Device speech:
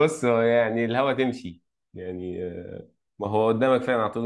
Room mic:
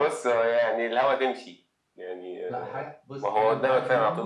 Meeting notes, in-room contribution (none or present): present